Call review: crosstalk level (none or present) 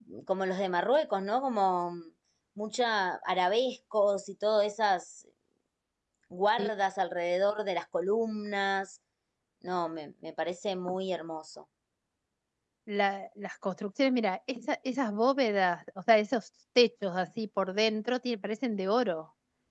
none